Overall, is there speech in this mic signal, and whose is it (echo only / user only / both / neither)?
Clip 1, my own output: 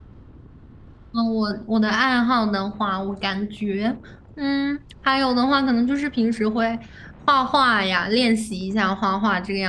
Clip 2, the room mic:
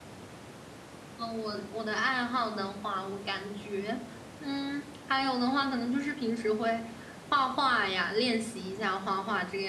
echo only